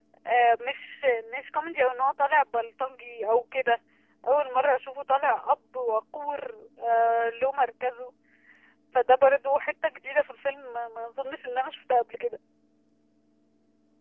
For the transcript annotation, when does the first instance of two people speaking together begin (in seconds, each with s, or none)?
none